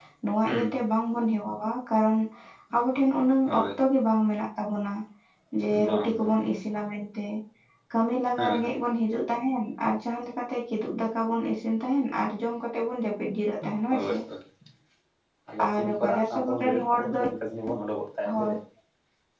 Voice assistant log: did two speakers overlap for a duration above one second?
Yes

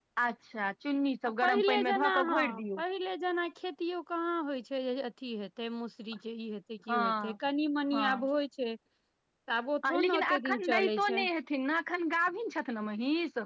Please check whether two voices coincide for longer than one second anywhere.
Yes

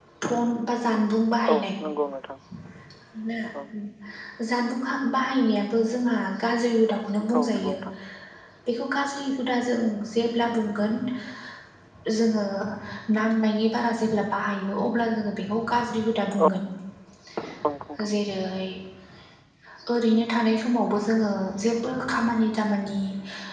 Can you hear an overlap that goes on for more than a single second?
No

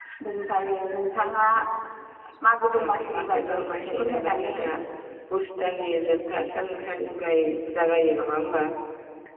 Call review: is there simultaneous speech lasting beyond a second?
Yes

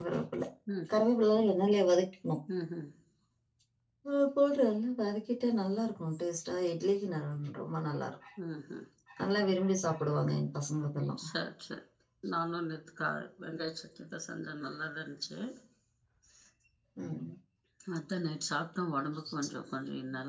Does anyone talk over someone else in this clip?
No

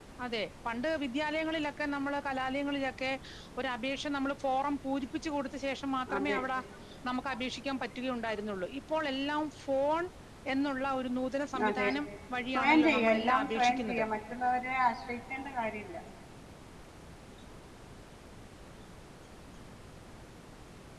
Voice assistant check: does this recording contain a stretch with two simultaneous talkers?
Yes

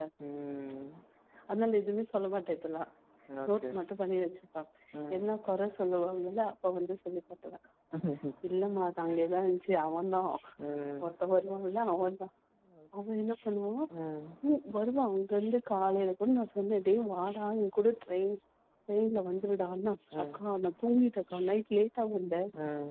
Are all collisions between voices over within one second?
Yes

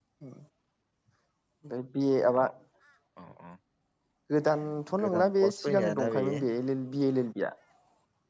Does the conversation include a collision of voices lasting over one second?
Yes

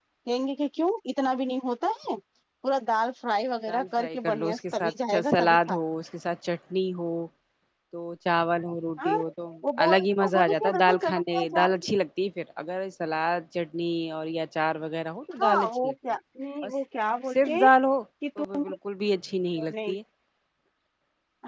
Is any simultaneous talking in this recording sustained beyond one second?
Yes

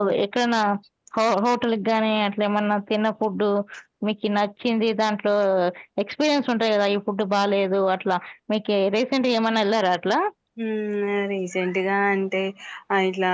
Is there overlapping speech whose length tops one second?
No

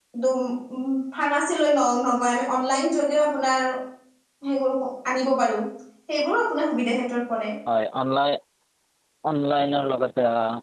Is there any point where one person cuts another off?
No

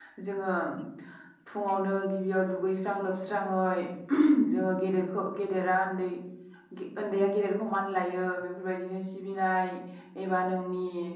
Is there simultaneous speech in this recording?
No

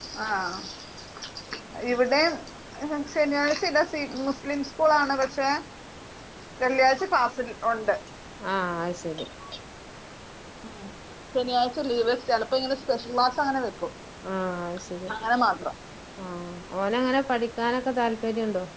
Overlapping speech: No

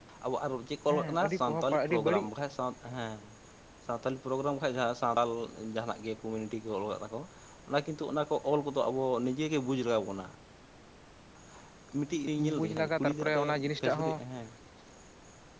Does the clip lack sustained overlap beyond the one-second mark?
No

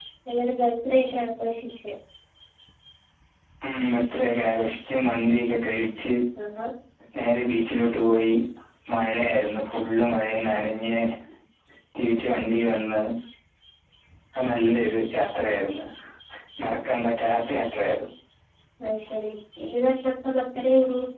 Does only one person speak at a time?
Yes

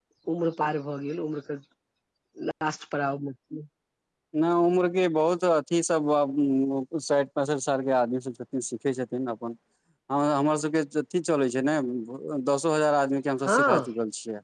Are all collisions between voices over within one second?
Yes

